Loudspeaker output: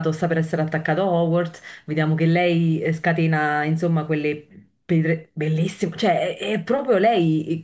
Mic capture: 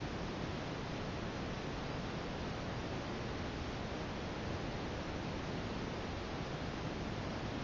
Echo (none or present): none